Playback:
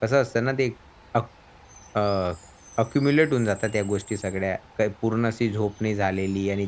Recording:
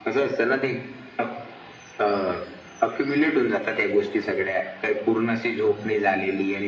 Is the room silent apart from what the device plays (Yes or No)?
Yes